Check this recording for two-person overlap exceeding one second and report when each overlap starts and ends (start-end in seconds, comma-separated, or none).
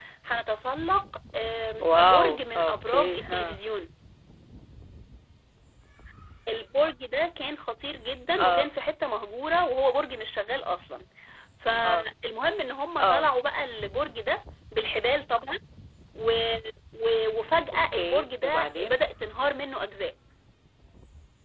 1.9-3.4, 17.7-19.0